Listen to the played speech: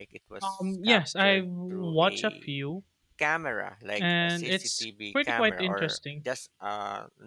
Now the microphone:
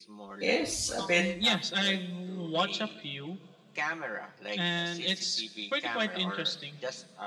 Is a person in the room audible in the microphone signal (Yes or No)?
Yes